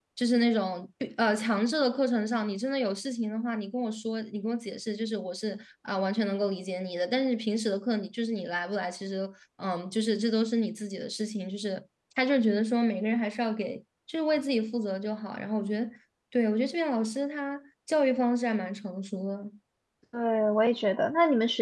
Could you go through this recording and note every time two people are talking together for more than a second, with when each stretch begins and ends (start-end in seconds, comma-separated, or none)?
none